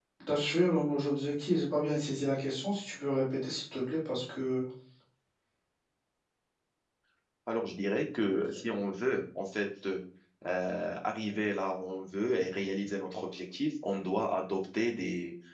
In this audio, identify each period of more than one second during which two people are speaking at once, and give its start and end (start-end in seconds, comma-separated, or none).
none